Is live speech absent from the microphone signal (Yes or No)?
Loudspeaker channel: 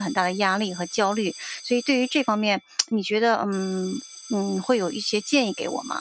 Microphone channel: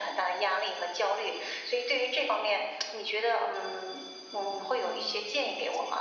No